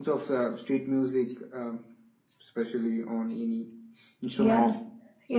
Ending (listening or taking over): taking over